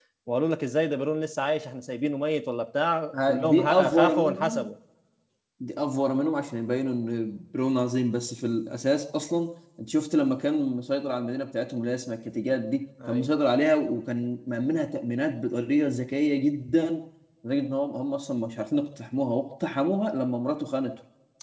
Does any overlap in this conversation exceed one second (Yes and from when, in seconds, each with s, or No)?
Yes, from 3.3 s